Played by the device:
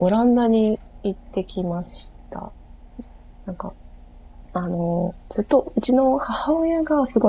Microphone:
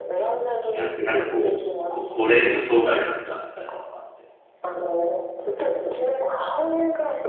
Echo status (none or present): present